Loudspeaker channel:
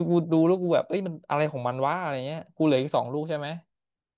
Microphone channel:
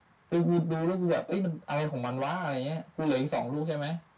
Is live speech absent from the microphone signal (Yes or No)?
Yes